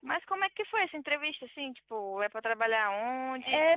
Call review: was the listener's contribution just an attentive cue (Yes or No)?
No